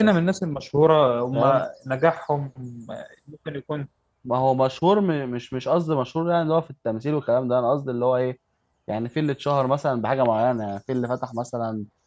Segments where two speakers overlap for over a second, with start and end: none

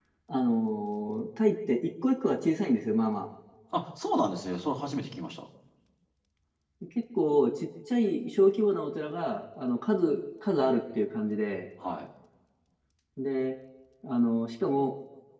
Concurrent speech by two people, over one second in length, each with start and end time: none

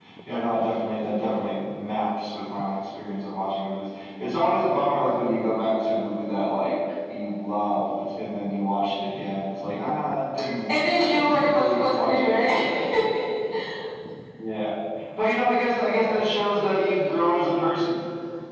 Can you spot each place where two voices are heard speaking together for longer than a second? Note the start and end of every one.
11.2-12.5

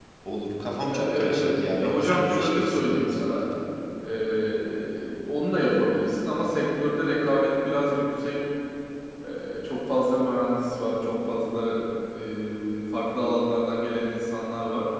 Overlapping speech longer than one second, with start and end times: 0.8-3.5

